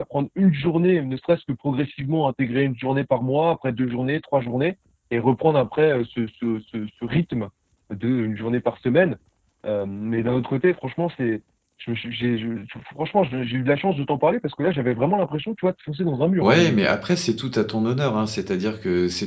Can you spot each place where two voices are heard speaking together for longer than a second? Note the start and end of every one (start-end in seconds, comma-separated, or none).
none